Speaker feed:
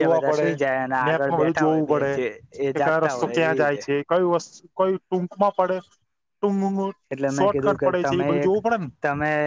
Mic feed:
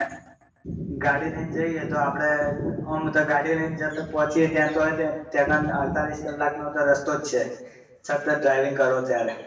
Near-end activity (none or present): present